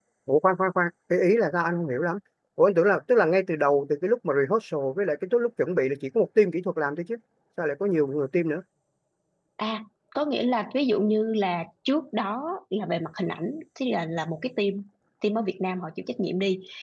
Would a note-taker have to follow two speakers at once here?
No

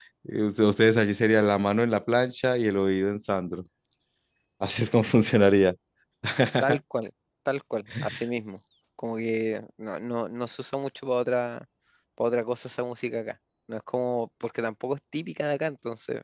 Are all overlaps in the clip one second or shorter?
Yes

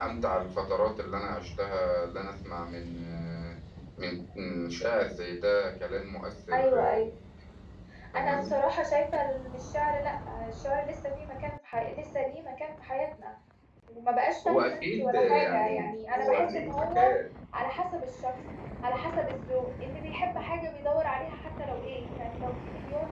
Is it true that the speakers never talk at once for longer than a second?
No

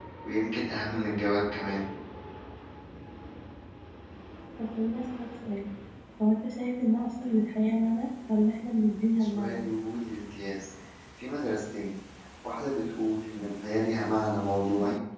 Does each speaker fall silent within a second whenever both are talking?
Yes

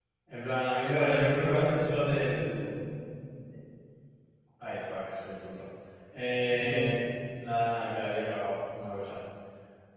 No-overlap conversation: No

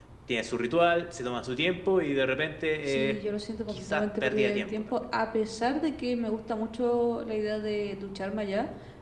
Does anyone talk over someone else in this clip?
Yes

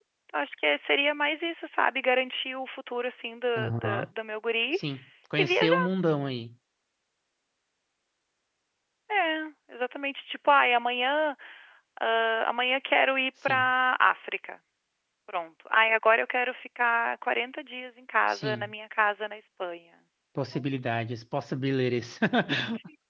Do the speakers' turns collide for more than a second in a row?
No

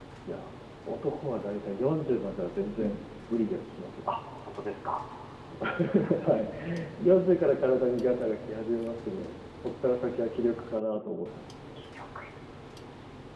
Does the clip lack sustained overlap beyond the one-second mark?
Yes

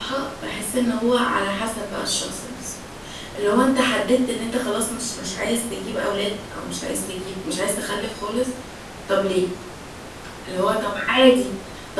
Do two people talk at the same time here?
No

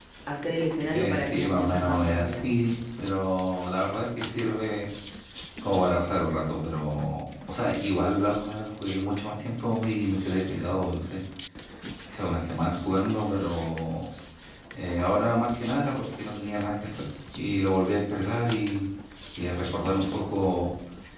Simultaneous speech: Yes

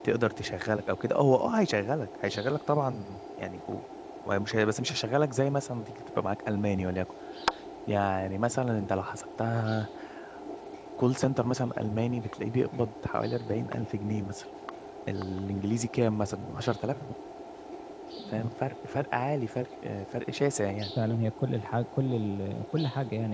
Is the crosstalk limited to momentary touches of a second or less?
Yes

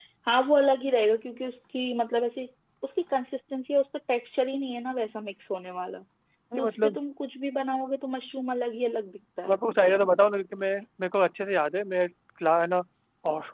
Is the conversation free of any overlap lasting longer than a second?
Yes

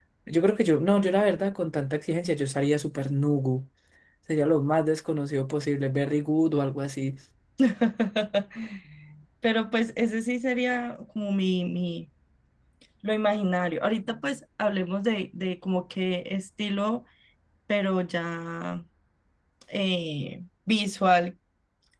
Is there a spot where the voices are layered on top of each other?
No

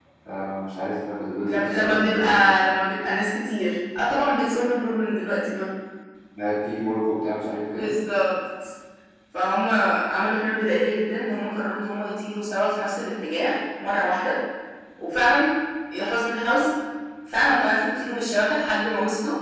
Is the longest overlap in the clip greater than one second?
Yes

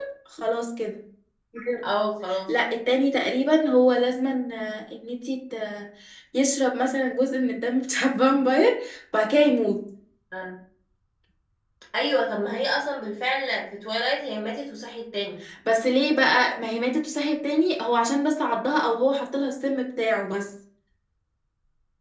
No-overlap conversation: Yes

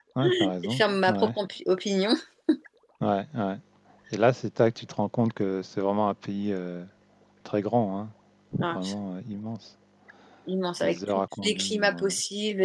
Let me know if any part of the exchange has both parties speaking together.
Yes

